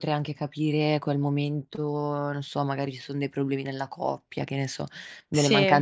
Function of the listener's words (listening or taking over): listening